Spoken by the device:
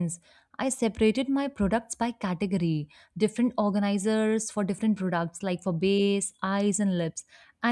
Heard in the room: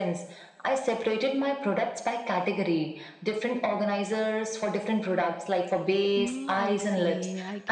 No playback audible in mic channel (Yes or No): No